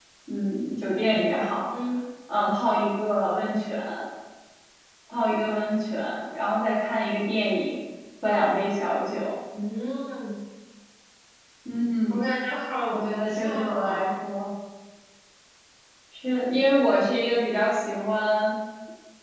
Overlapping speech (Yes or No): Yes